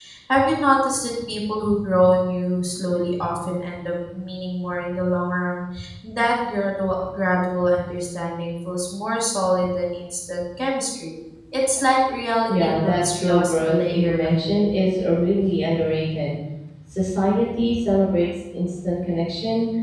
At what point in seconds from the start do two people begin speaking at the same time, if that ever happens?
12 s

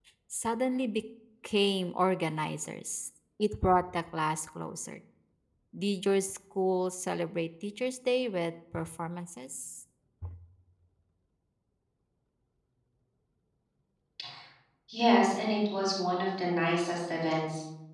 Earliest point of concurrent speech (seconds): none

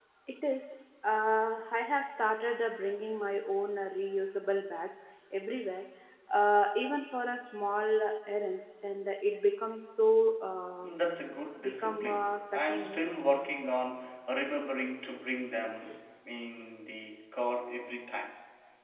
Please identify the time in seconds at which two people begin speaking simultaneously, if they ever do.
12 s

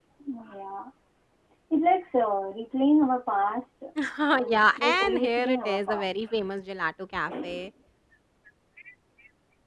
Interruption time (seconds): 4 s

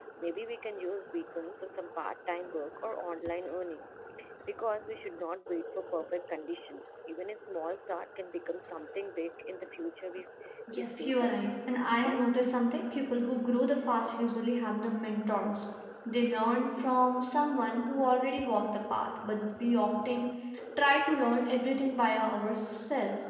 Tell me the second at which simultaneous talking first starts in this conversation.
11 s

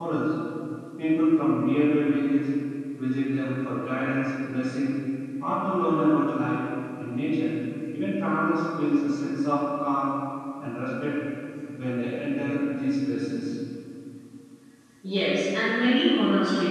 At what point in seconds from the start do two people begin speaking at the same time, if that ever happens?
none

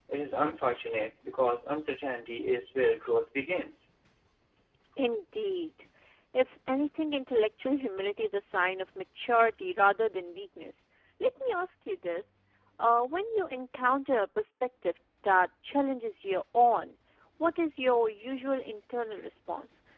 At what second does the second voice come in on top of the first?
none

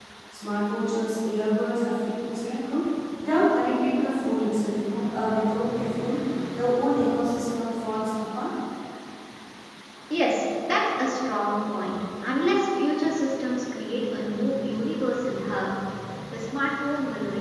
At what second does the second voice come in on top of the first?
none

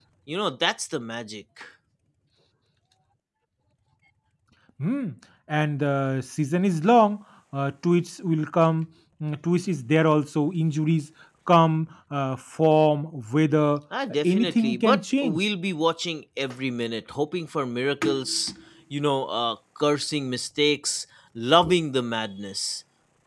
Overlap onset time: 14 s

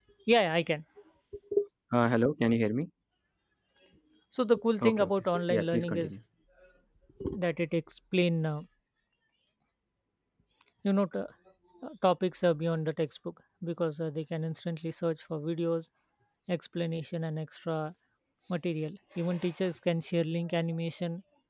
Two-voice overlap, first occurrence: 5 s

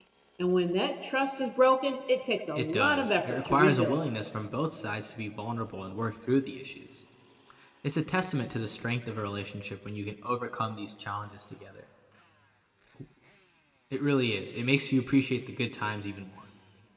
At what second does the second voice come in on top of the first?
3 s

